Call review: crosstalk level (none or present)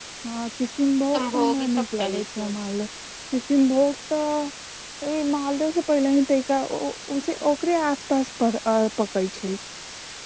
present